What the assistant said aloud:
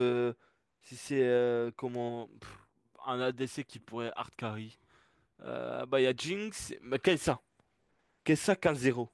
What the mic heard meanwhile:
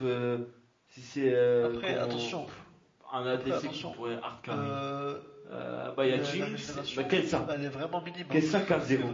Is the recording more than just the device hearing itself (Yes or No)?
Yes